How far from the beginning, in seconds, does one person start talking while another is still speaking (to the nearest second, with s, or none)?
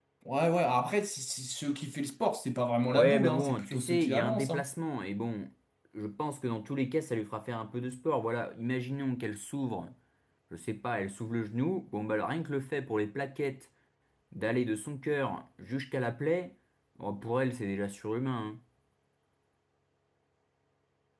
3 s